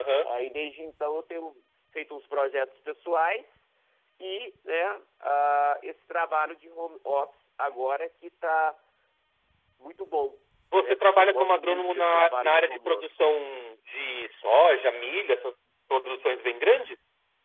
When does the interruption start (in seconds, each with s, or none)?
10.7 s